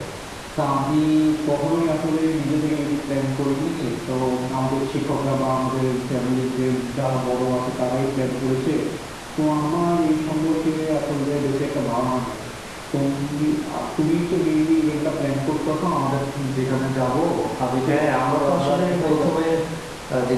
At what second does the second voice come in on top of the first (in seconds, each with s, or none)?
17.9 s